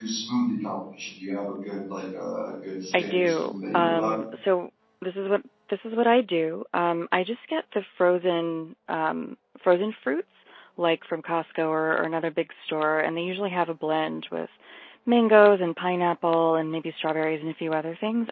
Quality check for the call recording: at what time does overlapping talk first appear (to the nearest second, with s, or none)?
3 s